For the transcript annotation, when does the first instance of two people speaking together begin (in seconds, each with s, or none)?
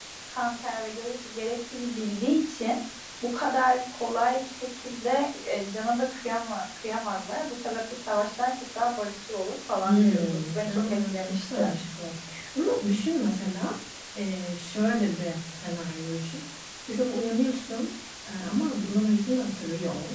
9.8 s